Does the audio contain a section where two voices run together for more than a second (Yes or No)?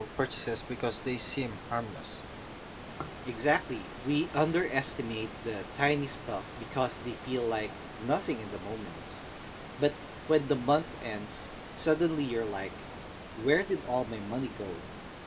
No